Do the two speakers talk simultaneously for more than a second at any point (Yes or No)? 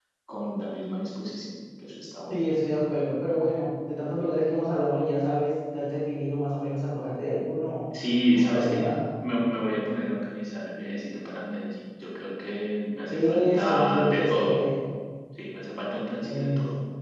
Yes